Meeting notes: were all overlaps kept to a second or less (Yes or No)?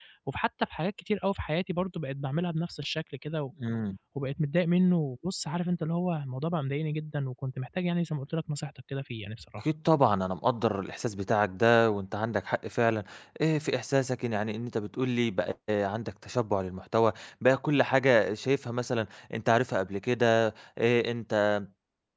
Yes